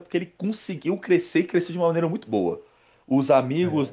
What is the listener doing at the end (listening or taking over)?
listening